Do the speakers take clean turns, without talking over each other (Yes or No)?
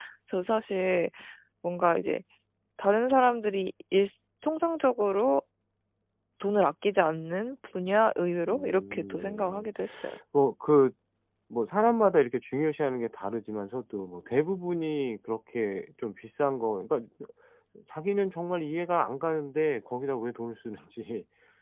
No